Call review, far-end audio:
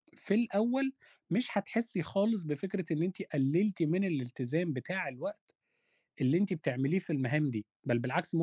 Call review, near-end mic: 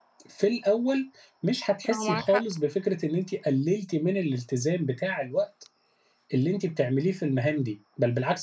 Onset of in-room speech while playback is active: 1.9 s

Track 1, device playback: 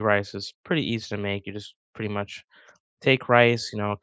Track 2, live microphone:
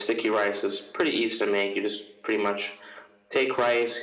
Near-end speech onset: none

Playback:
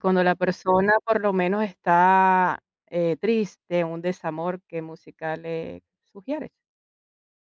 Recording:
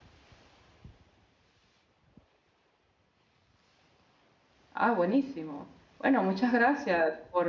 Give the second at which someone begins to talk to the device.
4.7 s

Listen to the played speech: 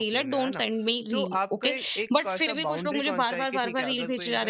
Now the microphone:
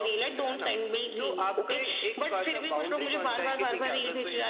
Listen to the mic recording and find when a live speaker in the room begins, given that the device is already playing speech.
none

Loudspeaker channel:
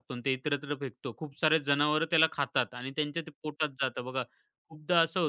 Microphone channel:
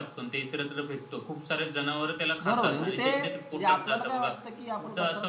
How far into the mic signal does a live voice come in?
2.4 s

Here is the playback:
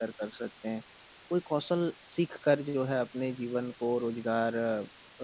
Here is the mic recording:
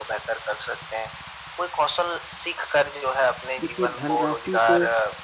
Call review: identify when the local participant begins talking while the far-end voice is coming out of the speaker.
3.6 s

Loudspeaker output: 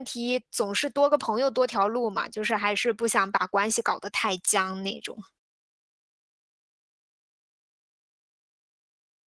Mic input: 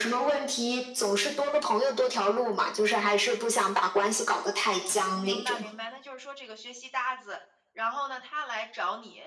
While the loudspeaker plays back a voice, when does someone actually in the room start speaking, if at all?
5.1 s

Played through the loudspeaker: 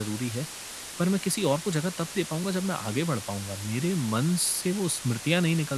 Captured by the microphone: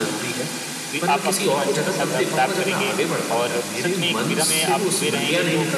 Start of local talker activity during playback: 0.9 s

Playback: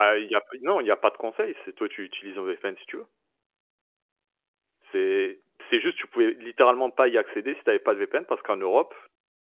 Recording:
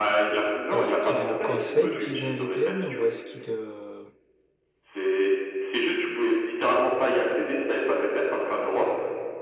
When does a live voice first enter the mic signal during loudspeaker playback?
0.7 s

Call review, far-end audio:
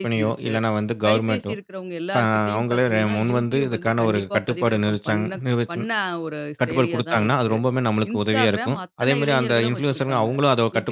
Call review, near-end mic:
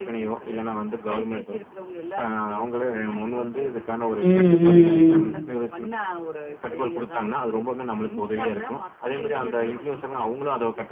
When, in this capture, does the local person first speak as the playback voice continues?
4.2 s

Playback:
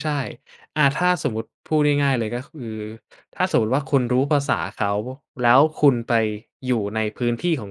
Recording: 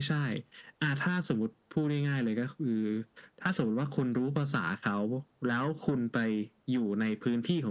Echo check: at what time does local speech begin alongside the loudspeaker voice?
none

